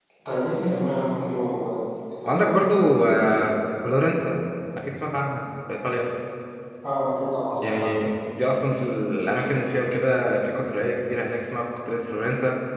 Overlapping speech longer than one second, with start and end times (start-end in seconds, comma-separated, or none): none